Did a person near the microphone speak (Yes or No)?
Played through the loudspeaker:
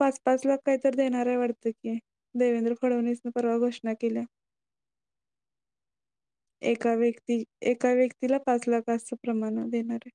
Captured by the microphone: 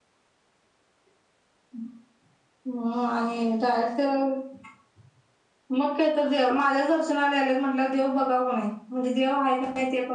Yes